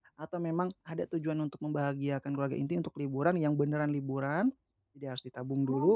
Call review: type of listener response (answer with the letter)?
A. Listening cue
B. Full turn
A